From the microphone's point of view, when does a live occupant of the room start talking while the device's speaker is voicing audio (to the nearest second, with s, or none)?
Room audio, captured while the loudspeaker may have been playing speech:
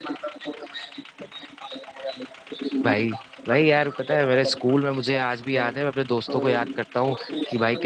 3 s